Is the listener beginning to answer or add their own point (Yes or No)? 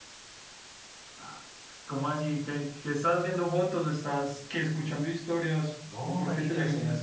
Yes